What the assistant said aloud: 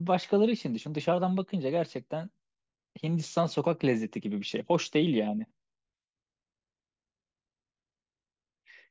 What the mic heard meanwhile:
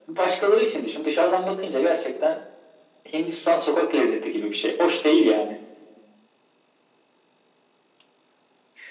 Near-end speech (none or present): none